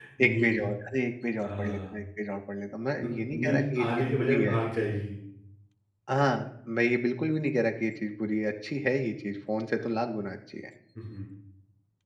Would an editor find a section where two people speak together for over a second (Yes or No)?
Yes